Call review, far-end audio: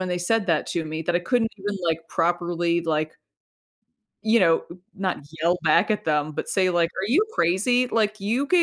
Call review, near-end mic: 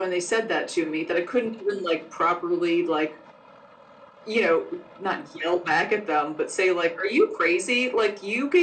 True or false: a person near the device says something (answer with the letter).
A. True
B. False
B